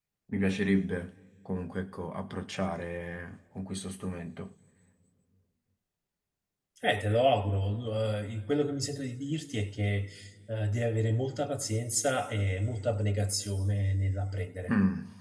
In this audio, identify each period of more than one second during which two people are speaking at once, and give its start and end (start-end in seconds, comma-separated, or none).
none